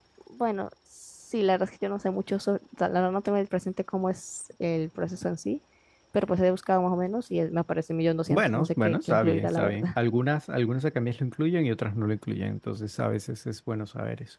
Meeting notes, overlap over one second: present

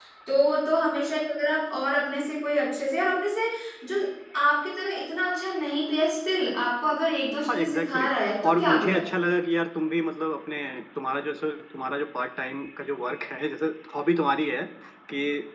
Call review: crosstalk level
present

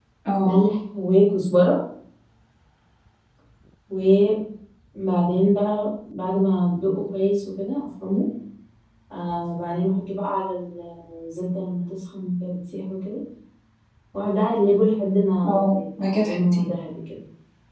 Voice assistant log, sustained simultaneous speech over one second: present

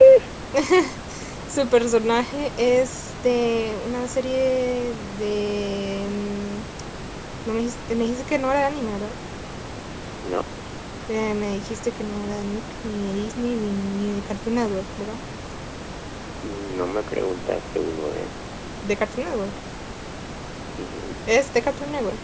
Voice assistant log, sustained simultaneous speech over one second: none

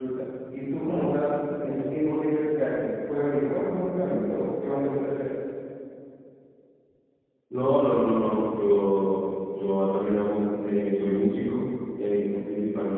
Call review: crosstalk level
none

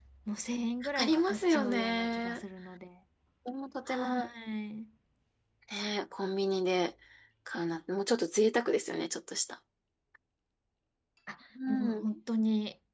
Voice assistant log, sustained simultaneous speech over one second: present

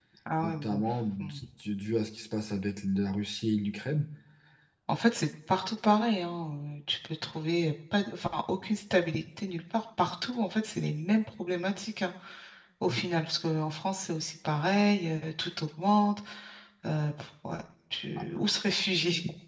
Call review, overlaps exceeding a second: none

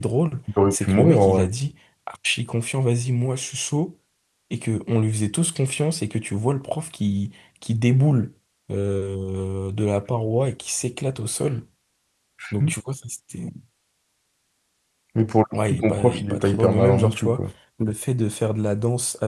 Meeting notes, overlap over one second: present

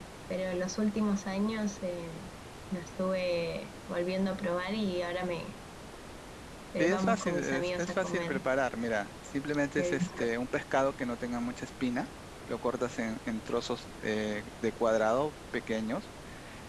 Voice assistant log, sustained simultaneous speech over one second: present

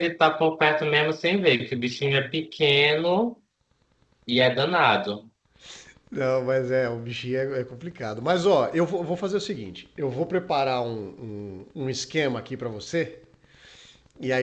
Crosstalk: none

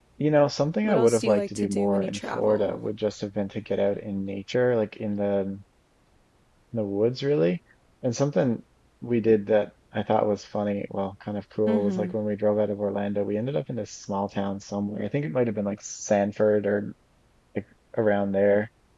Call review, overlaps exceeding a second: present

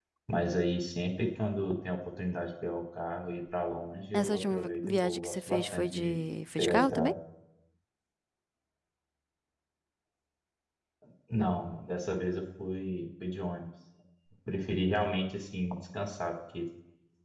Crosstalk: present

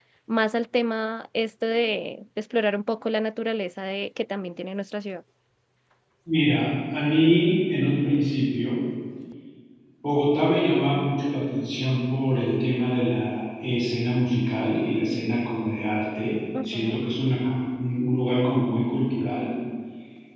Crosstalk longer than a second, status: none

